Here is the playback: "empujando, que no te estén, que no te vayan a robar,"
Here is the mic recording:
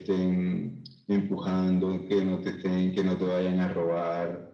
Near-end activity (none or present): none